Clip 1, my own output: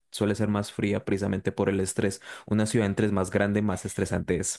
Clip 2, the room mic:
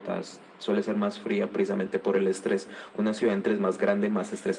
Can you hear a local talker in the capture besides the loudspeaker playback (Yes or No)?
No